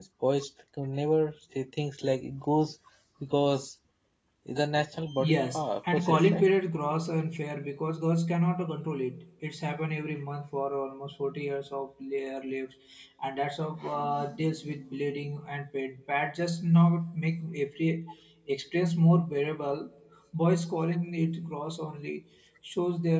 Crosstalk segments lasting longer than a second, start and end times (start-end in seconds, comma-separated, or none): 5.2-6.5